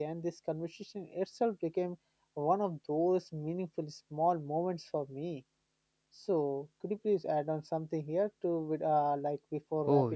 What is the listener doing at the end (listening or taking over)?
taking over